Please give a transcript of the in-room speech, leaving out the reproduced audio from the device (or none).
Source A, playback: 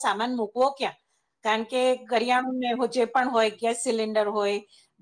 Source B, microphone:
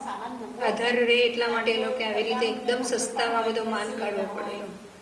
અધર રહે એટલા માટે એ લોક કોએ આવી રીતે એકદમ સસ્તા માં બધો માલ કાઢવો પડેલો.